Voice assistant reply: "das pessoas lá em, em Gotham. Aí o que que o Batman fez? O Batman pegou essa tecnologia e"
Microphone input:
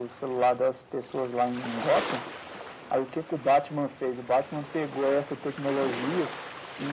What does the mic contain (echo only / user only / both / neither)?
echo only